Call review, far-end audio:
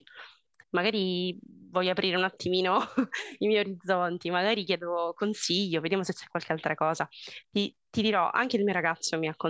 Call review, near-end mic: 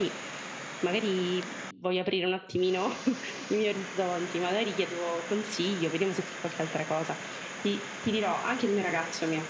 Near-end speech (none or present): none